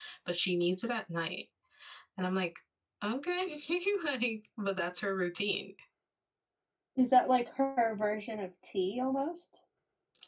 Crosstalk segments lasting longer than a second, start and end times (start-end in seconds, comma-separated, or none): none